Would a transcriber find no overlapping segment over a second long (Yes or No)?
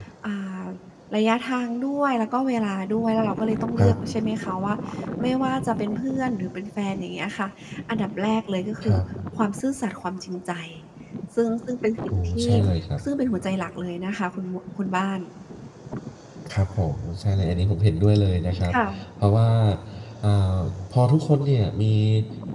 Yes